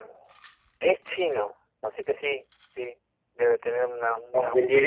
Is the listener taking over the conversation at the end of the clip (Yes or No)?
Yes